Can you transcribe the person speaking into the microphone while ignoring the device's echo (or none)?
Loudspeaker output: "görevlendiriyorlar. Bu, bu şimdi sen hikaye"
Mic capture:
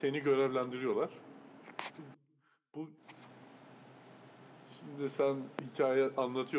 none